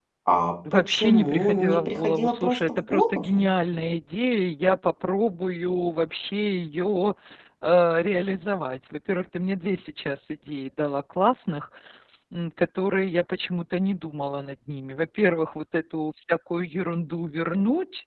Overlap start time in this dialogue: 0.7 s

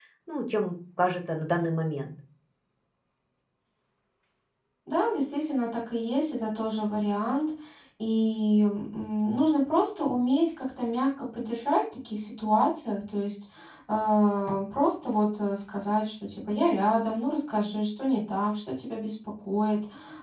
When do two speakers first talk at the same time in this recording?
none

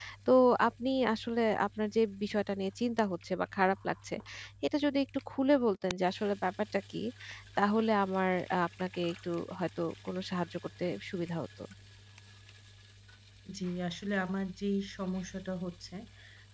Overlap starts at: none

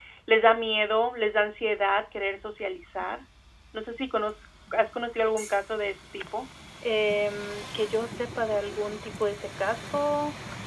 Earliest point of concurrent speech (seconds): none

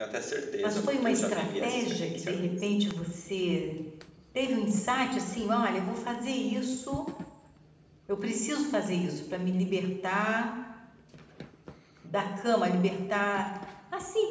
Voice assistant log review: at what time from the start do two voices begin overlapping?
0.6 s

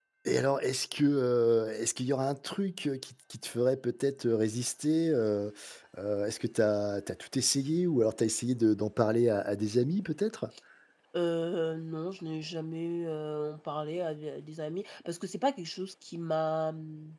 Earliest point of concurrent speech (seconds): none

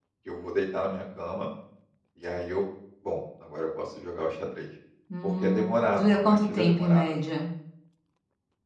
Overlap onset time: 5.2 s

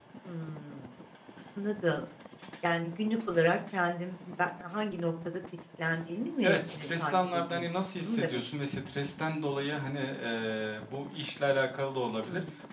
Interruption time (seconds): 6.4 s

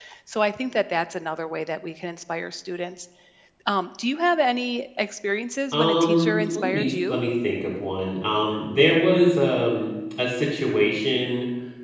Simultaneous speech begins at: 5.7 s

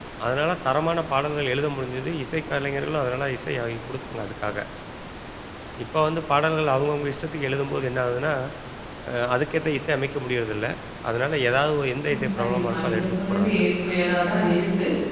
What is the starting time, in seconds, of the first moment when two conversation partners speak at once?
12.1 s

